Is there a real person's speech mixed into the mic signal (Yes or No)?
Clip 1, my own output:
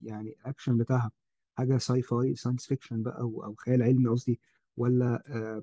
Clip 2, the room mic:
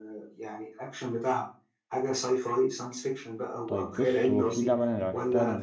Yes